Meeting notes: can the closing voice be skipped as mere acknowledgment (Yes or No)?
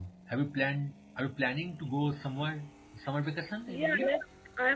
No